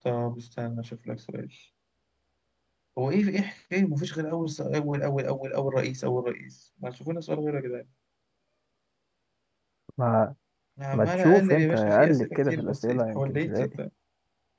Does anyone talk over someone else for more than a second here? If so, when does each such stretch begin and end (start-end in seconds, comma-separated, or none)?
10.9-13.7